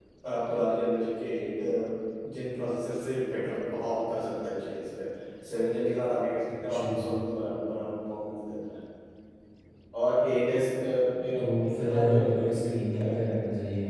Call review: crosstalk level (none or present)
present